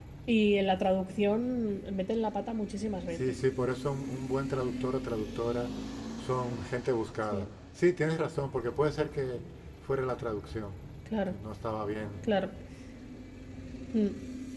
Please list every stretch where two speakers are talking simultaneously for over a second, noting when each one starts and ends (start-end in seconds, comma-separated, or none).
none